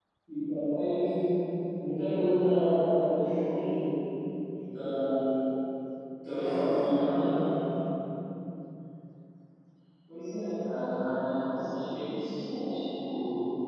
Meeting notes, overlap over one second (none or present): none